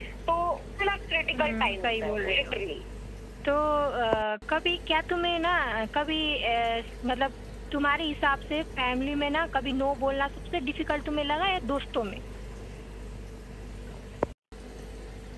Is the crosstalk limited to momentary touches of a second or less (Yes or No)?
No